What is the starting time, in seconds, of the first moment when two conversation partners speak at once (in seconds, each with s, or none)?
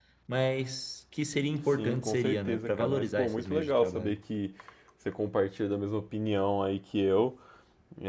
1.8 s